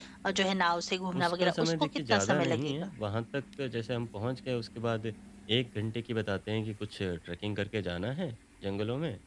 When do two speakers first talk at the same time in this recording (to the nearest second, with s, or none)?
1 s